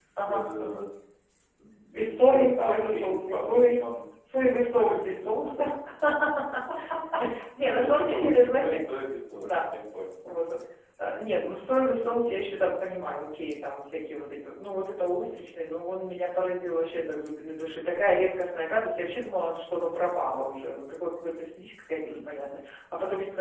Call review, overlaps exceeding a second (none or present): present